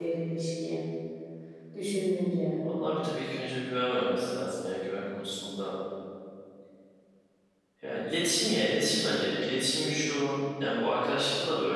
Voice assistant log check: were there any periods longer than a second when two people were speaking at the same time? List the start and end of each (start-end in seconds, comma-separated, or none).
none